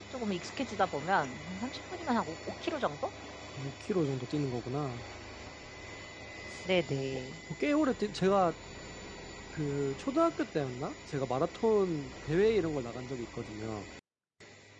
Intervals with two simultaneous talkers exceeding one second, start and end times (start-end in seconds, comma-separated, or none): none